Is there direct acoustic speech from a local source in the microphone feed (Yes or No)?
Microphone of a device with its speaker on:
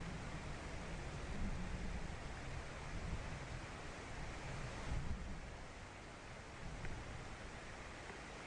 No